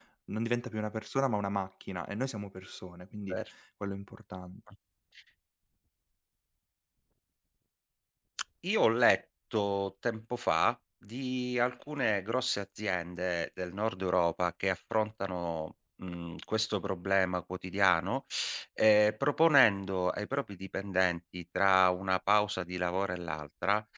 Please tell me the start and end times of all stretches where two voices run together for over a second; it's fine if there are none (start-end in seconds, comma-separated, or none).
none